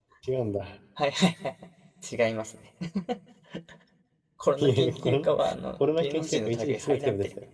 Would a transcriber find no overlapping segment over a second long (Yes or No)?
No